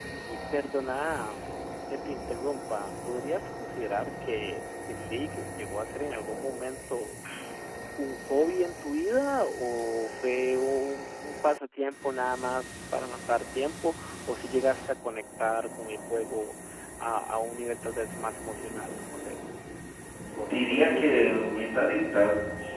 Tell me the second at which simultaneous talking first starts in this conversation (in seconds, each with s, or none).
20.5 s